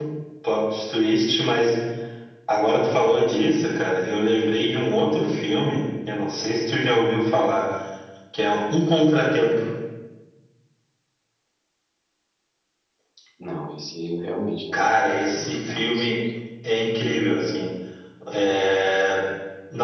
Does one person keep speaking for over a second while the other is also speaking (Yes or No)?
Yes